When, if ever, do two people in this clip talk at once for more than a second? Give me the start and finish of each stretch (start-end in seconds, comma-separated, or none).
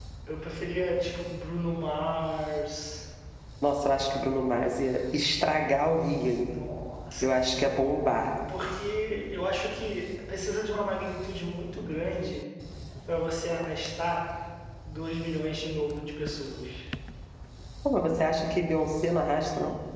none